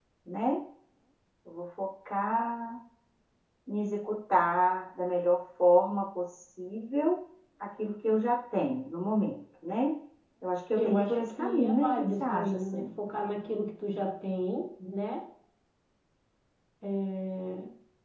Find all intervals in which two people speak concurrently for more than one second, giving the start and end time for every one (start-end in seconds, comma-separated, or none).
10.8-12.9